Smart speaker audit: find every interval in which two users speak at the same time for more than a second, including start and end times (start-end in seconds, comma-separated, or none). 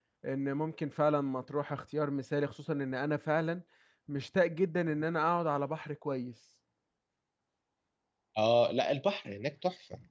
none